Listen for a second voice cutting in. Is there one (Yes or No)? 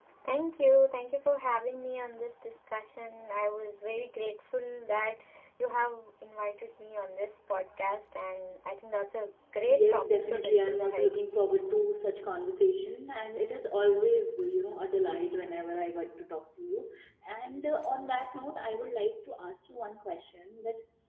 Yes